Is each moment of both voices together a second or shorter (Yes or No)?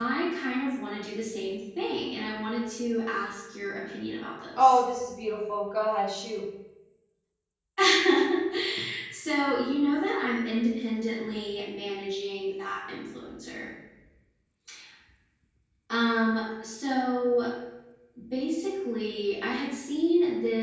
Yes